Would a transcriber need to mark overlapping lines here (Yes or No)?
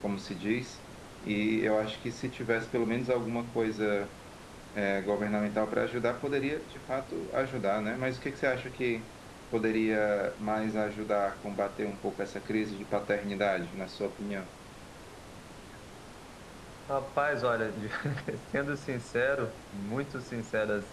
No